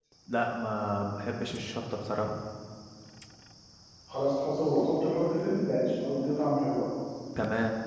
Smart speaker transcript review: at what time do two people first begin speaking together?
none

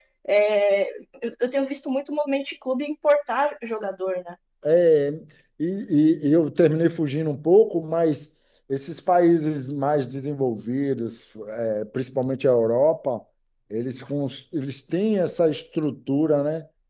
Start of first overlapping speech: none

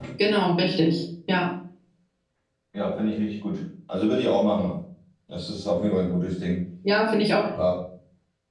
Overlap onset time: none

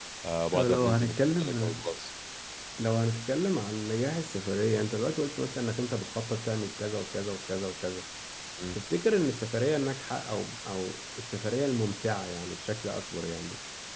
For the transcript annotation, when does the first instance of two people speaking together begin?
0.5 s

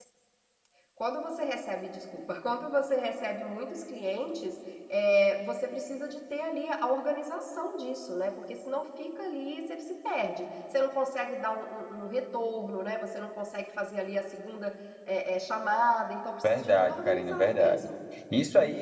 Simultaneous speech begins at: 16.4 s

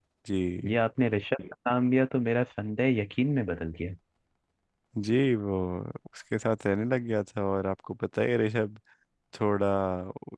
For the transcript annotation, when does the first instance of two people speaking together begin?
none

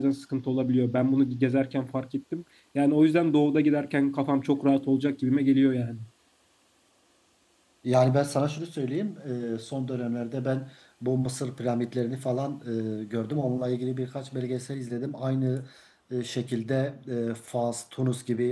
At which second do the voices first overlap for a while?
none

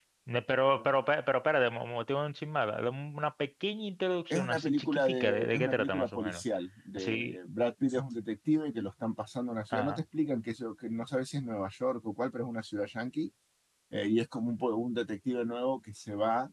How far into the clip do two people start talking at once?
4.3 s

